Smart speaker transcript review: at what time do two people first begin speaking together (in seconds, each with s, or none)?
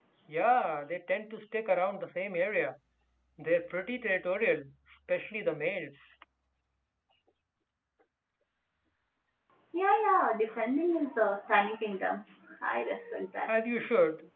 none